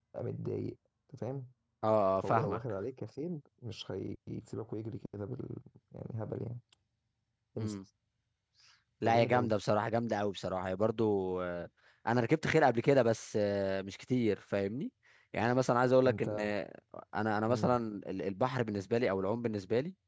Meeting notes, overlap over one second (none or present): none